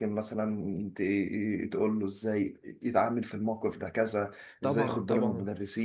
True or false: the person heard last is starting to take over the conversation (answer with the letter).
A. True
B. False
B